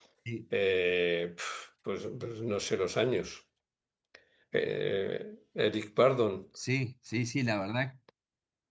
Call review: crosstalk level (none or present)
none